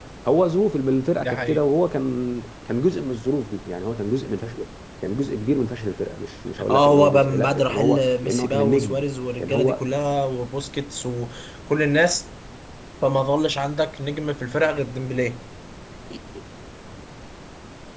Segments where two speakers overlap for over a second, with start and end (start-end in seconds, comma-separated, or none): 6.7-9.0